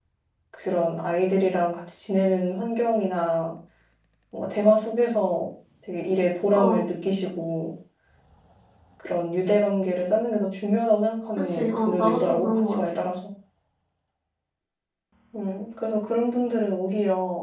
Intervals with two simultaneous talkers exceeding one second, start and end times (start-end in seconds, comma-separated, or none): 11.4-13.0